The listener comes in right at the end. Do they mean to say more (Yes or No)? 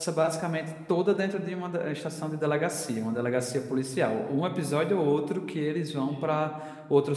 No